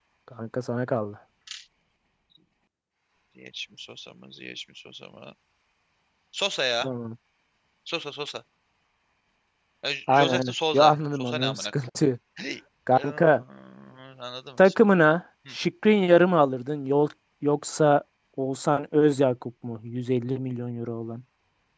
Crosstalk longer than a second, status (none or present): present